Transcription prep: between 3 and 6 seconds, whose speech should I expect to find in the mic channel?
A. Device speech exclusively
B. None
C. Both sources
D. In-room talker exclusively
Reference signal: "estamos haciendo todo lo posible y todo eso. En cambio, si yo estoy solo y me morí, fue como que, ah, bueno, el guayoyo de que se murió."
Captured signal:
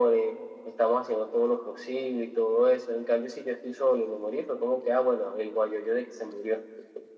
A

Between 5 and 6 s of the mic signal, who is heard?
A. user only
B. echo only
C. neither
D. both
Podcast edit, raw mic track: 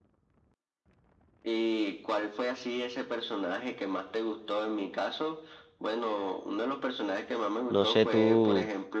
B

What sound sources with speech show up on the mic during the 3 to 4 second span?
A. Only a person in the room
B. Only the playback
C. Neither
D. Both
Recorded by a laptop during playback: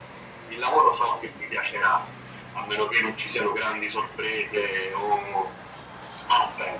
B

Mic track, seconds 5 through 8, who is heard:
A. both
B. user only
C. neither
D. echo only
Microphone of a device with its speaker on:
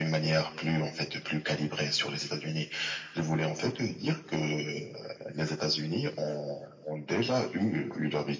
D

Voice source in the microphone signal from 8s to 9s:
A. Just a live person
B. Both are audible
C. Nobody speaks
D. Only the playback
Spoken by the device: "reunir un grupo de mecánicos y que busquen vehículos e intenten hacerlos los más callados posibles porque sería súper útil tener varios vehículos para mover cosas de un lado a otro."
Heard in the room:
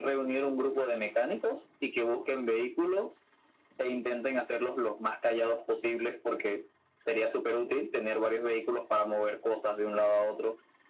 D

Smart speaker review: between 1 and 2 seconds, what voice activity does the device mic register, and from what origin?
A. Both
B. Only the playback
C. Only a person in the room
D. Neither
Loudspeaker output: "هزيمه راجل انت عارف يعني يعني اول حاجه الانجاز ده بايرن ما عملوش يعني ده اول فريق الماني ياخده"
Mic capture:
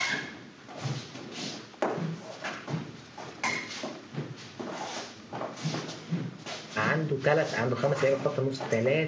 D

